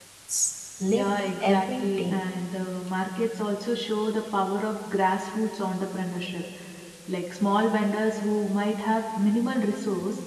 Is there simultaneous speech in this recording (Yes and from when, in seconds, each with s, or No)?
Yes, from 0.9 s